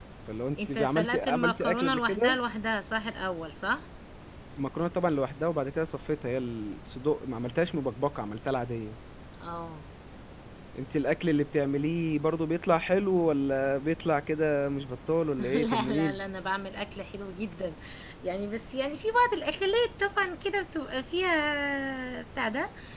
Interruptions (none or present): present